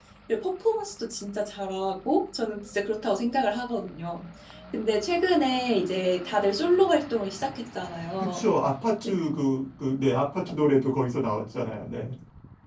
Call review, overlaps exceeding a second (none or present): none